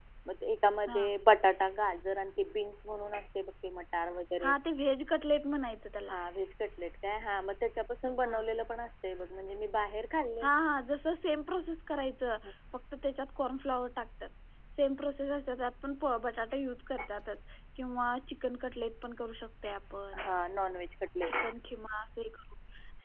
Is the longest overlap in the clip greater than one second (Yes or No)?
No